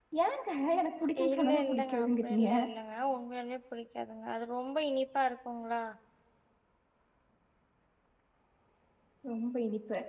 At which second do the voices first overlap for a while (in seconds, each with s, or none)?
1.2 s